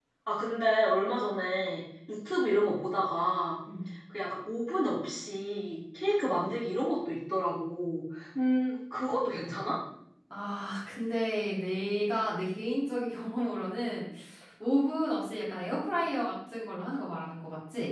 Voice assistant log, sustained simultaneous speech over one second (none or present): none